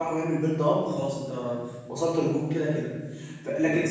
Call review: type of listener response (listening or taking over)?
listening